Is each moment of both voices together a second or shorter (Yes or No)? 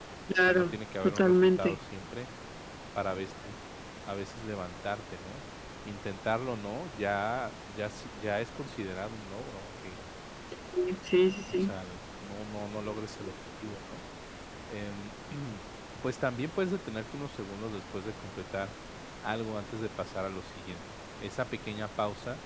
No